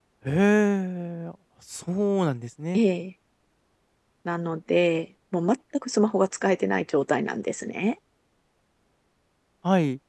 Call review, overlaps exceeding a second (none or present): none